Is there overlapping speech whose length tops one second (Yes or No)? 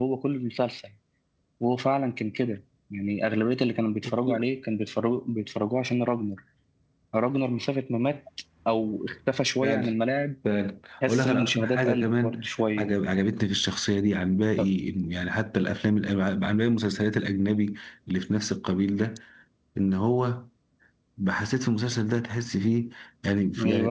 Yes